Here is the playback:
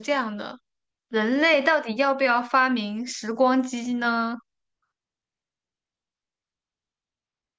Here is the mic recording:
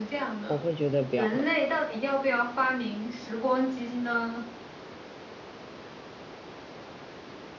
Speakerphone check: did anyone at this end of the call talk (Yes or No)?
Yes